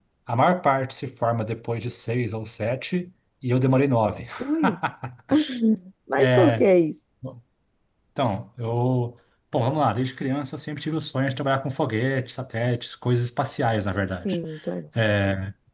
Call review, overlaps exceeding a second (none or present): none